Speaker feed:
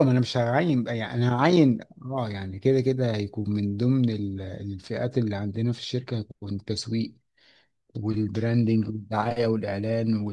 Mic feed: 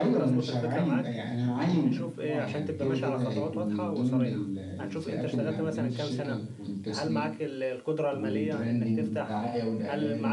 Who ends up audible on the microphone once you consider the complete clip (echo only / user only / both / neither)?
both